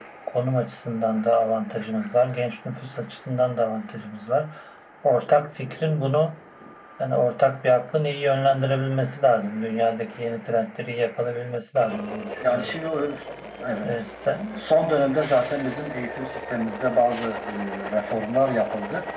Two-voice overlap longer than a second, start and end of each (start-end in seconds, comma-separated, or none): none